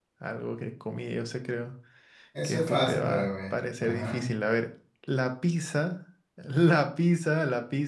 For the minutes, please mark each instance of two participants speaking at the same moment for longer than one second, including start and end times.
2.4-4.3

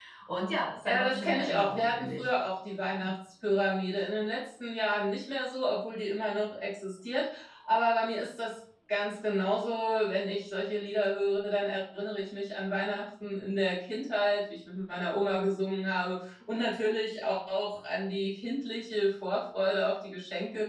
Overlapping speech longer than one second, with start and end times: 0.8-2.3

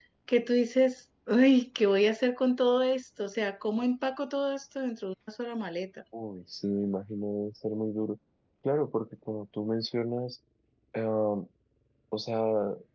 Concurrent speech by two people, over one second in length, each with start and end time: none

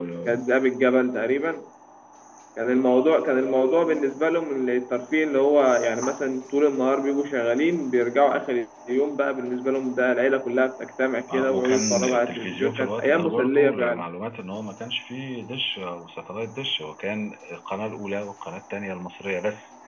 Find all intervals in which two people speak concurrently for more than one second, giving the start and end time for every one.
11.3-14.0

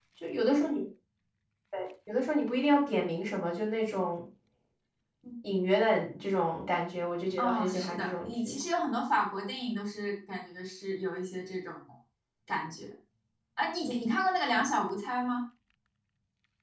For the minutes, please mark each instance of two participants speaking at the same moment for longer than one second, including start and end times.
7.4-8.6

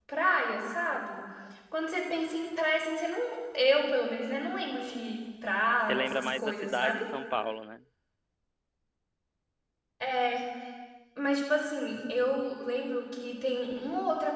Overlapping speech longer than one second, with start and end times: 5.8-7.1

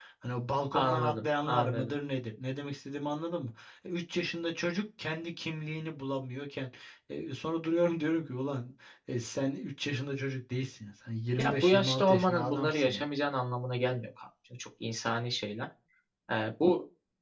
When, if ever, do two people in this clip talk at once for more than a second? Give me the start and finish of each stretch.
0.7-1.9, 11.4-13.0

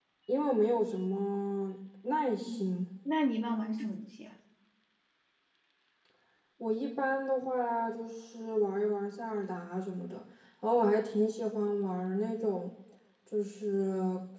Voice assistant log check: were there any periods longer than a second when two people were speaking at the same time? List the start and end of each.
none

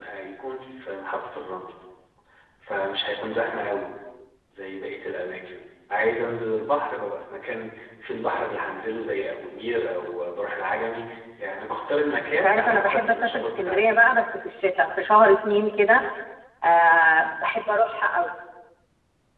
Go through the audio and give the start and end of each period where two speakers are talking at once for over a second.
12.4-14.0

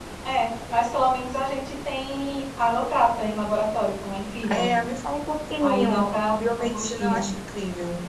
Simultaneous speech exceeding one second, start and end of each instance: 5.6-7.3

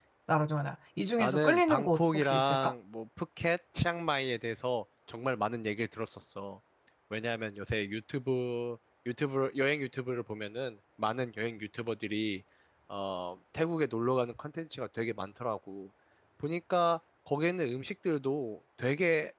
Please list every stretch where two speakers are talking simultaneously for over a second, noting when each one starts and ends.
1.2-2.7

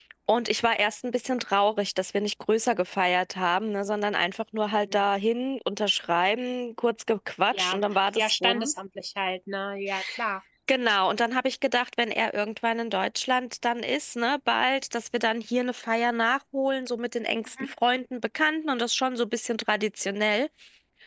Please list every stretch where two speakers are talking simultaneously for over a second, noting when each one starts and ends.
7.5-8.7

